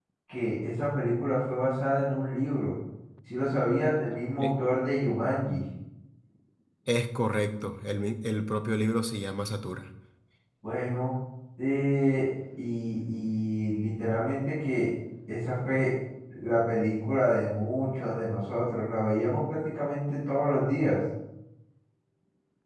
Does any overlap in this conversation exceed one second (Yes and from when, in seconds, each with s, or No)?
No